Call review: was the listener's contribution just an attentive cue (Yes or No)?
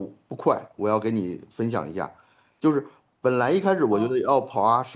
Yes